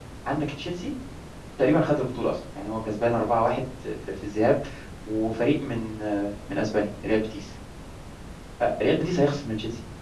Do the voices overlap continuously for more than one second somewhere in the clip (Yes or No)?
No